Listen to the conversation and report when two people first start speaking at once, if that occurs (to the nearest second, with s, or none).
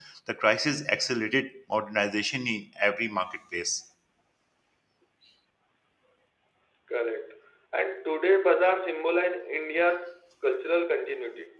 none